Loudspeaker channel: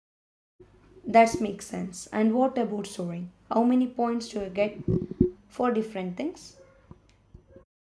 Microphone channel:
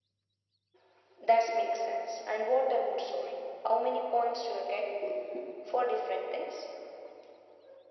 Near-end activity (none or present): none